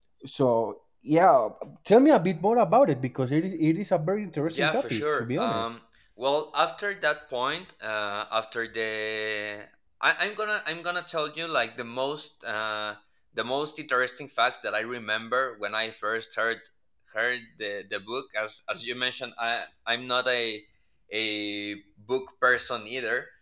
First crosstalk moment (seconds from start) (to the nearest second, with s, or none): 5 s